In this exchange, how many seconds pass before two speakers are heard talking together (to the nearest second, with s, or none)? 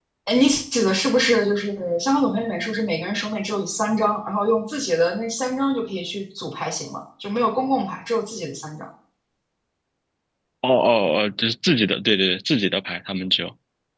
none